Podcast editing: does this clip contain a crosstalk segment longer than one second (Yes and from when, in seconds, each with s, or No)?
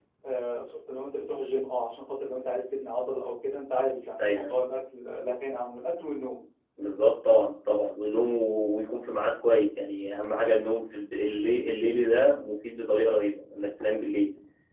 No